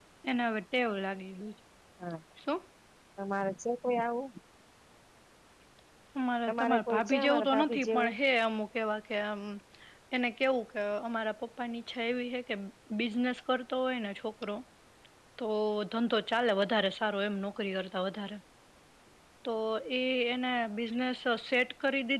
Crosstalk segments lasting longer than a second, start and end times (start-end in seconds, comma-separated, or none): 6.5-8.1